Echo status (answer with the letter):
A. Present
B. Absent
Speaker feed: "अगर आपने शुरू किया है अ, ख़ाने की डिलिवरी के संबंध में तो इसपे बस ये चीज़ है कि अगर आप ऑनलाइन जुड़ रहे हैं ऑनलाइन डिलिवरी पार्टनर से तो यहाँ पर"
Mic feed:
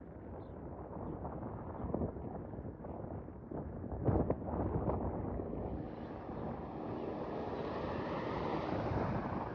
B